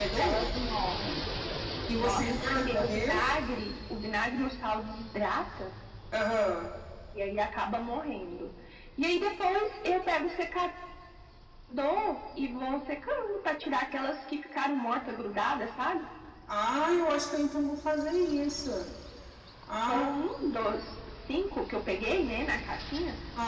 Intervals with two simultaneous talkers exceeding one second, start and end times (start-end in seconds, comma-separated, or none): 2.0-3.2